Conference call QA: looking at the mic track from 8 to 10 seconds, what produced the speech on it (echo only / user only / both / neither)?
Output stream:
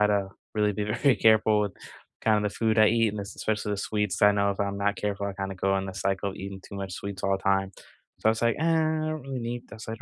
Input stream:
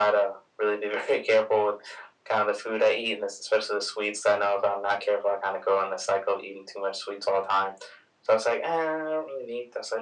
echo only